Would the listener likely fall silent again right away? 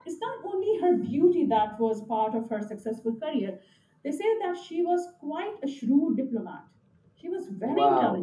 No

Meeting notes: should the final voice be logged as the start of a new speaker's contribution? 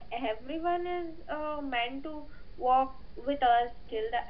Yes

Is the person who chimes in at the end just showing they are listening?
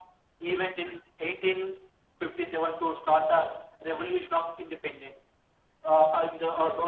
Yes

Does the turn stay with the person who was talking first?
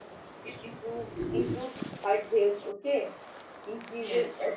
Yes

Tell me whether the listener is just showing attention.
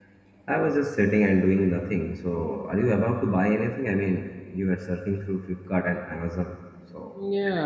No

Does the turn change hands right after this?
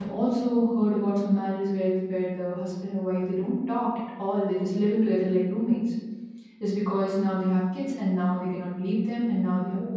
No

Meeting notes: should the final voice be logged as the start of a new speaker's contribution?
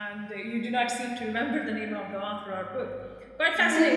Yes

